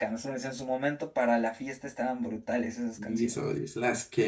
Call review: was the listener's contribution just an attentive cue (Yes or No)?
No